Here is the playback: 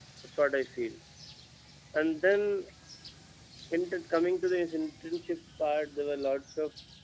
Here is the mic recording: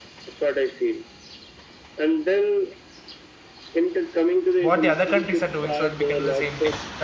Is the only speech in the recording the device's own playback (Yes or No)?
No